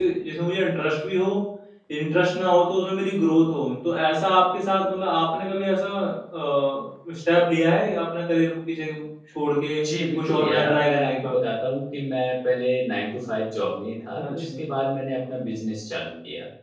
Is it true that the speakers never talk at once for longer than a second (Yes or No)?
No